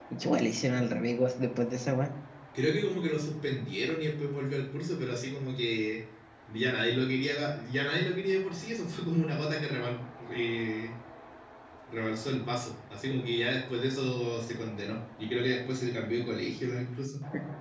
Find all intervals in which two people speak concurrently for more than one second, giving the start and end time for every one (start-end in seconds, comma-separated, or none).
none